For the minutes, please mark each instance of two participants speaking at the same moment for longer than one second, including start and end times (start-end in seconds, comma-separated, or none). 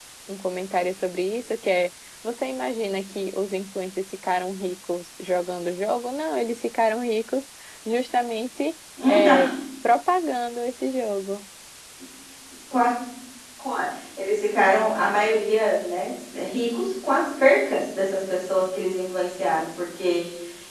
none